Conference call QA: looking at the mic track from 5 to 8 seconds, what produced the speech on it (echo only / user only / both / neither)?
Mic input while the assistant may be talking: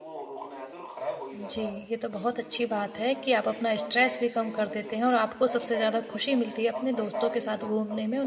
both